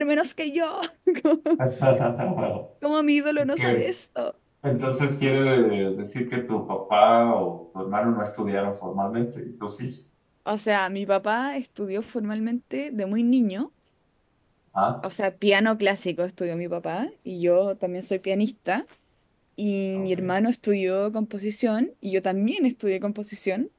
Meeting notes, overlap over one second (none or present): none